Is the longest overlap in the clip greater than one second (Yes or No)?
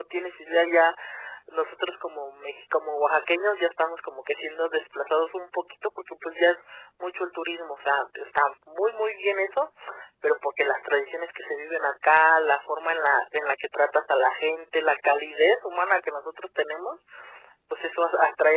No